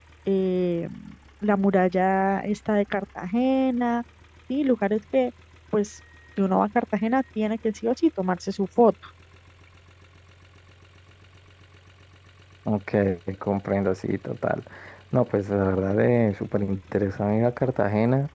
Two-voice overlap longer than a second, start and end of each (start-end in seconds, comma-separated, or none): none